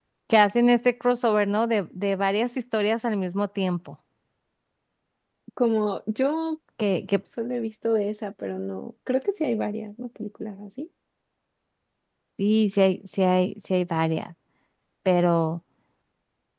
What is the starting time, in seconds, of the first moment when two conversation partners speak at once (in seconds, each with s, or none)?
none